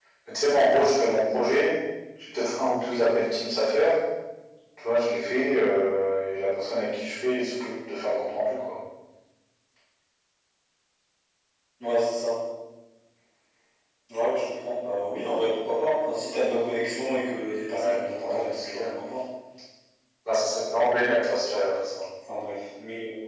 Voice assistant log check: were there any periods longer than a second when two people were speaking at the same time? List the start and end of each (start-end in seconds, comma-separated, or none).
17.8-19.0